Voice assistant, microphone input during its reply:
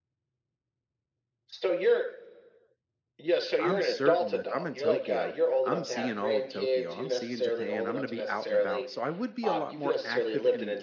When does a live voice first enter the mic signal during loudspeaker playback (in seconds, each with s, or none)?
3.6 s